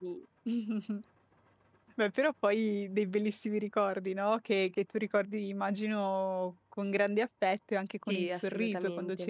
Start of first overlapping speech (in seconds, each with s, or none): 8.1 s